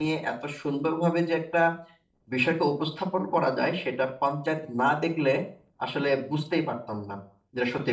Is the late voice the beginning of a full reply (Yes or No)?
Yes